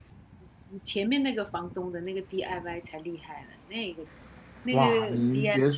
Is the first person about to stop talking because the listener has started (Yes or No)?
Yes